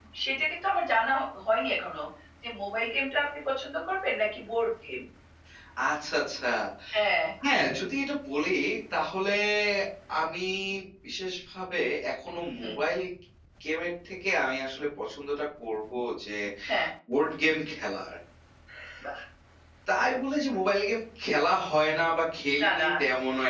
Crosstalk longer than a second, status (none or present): none